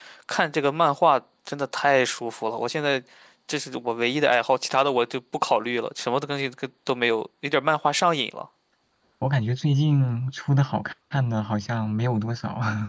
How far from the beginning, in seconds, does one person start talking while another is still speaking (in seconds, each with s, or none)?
none